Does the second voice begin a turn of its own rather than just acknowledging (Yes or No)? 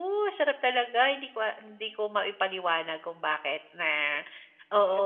Yes